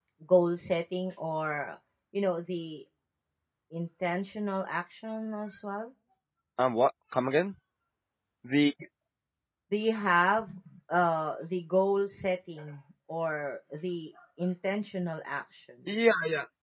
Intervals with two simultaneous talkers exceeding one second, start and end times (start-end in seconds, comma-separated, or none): none